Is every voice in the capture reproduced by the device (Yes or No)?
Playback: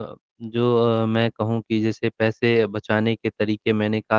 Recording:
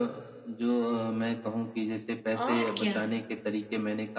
No